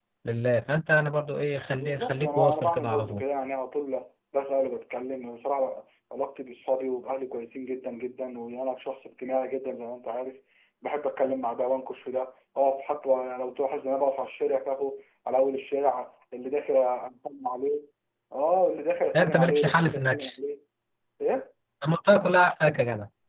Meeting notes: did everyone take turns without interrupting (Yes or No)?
No